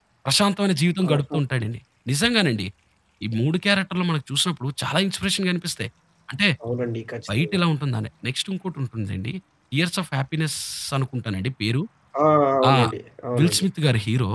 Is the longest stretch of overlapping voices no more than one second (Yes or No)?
Yes